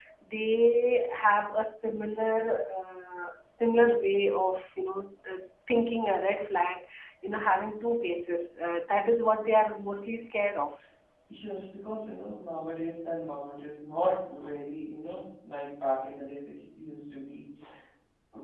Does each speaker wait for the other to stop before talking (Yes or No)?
Yes